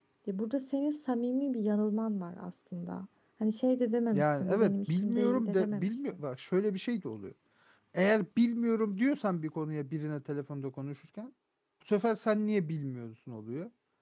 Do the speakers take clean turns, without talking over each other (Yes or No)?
No